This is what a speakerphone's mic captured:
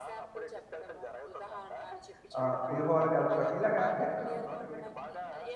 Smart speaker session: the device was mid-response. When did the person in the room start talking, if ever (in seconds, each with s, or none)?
2.4 s